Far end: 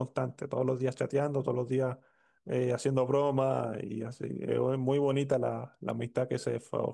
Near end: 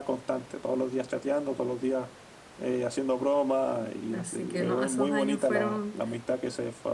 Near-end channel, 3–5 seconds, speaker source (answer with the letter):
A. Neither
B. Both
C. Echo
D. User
B